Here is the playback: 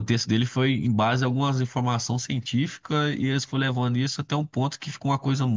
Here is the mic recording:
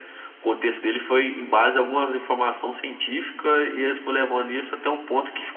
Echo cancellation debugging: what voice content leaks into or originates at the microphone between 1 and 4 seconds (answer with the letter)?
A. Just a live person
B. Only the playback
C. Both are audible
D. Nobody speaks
B